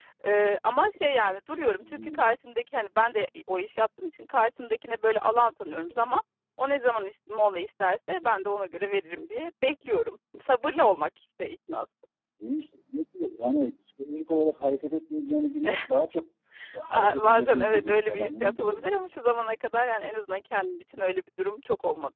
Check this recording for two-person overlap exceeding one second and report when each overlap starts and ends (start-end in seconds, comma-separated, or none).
16.9-18.9